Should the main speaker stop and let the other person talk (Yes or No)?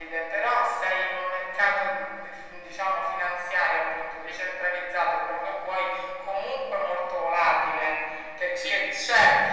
No